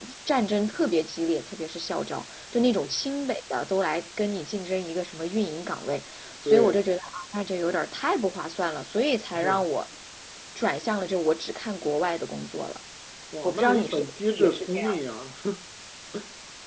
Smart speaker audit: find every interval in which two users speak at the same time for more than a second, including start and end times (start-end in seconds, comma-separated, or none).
13.4-14.9